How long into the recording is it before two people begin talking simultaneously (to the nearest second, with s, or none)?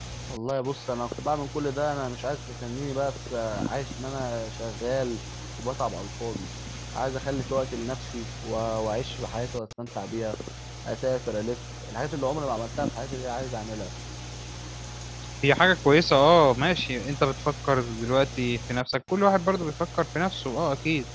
none